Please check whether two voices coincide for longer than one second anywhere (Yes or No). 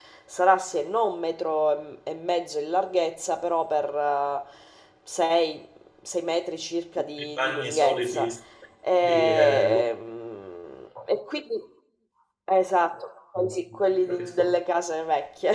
Yes